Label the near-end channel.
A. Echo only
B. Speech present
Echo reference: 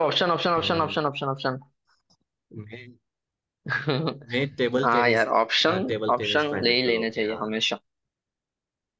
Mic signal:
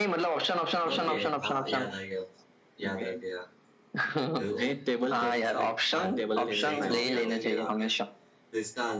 B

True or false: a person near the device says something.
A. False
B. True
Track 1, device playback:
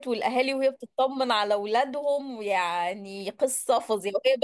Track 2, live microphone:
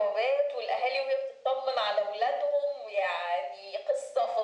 A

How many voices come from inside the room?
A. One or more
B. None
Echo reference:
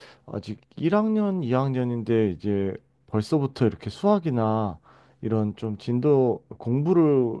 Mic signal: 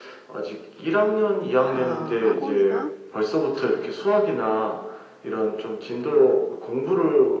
A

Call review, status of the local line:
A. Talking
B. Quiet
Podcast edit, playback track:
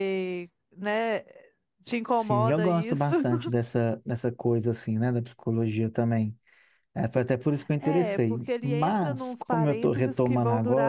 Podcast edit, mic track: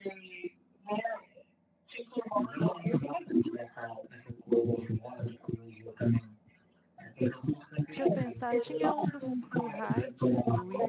A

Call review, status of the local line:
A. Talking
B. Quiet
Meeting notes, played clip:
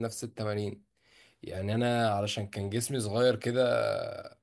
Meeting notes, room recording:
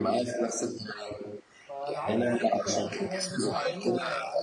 A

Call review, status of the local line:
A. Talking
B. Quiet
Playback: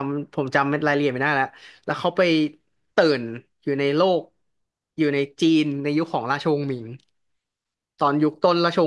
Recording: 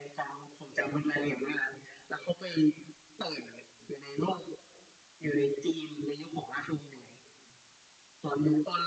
B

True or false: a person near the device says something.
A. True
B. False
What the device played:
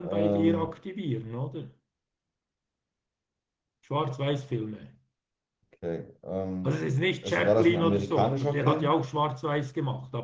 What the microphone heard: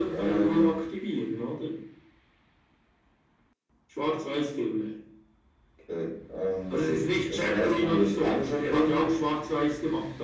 B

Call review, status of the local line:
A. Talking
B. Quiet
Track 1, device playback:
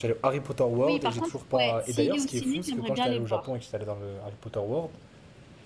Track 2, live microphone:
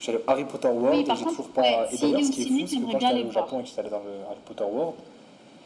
B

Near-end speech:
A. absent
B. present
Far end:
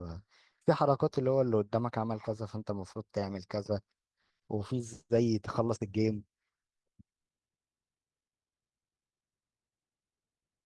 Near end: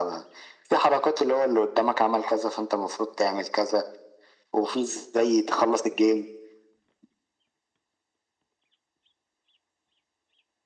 A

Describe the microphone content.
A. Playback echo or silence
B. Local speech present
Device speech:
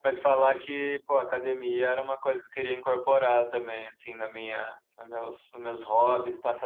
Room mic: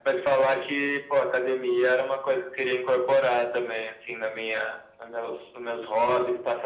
A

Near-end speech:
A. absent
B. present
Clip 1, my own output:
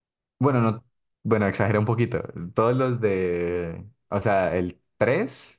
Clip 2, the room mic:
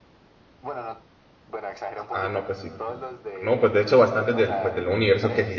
B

